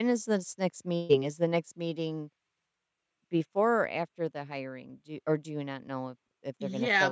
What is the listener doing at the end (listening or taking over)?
taking over